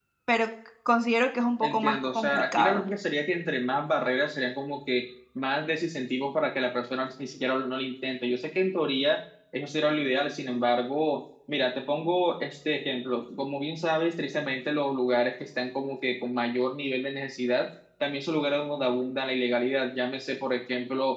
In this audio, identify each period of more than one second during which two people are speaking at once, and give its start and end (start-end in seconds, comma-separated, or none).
1.6-2.8